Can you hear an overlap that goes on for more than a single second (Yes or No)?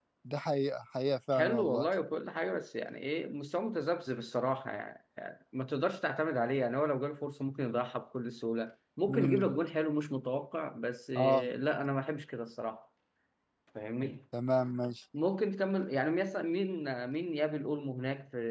No